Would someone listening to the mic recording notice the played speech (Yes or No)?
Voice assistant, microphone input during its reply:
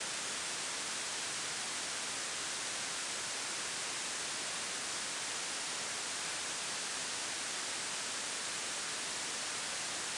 No